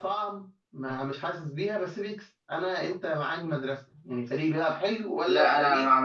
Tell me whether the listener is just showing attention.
No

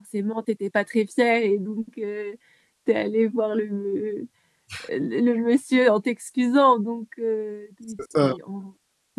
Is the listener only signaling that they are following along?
Yes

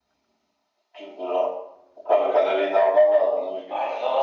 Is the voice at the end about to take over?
Yes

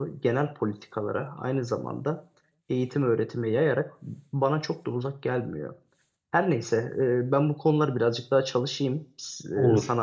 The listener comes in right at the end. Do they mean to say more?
No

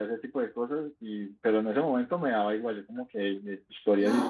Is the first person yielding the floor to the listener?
Yes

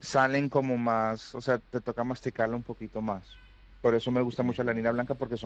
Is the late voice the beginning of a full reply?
No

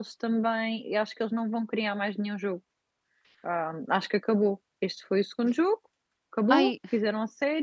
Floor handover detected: No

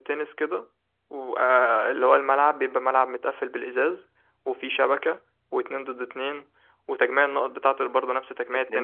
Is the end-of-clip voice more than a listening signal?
Yes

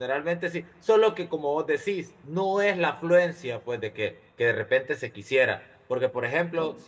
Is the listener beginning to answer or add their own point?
No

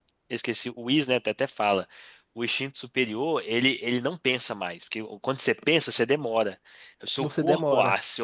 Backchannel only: Yes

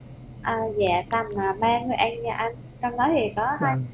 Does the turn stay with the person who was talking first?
Yes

